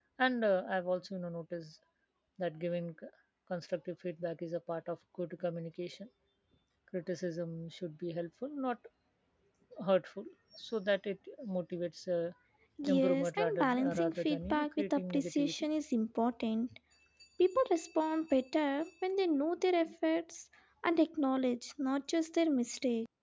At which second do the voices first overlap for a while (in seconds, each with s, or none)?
12.9 s